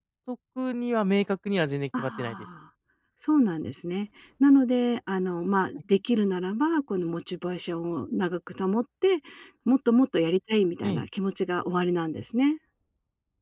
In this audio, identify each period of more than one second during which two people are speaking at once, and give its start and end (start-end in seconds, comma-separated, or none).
none